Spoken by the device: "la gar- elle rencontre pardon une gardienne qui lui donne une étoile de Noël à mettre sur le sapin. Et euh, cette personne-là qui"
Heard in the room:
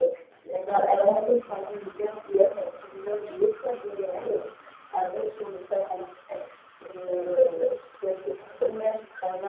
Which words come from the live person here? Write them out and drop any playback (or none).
none